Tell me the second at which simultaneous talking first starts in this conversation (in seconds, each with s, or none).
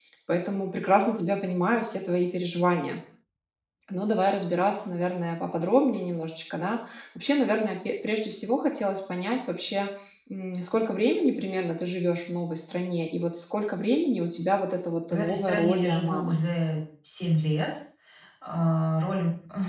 15.1 s